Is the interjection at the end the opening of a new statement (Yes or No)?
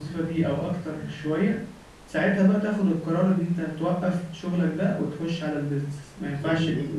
Yes